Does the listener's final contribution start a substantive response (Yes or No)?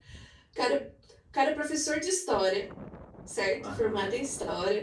No